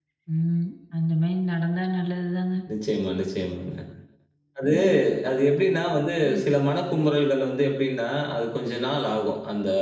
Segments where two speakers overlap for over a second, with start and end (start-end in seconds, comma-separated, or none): none